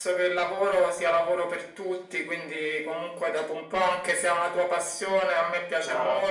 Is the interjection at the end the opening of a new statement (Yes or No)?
No